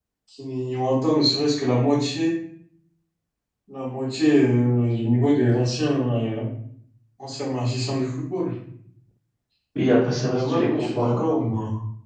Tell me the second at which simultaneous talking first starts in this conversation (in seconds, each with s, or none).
10.0 s